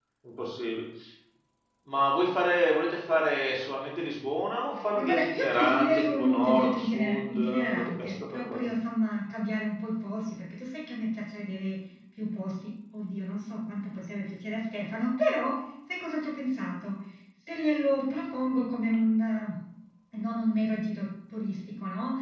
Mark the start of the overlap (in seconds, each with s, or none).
5.0 s